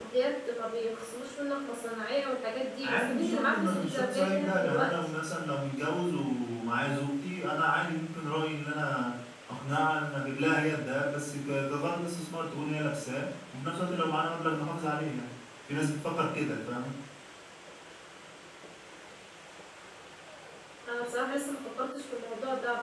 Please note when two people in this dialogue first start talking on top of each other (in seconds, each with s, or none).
2.8 s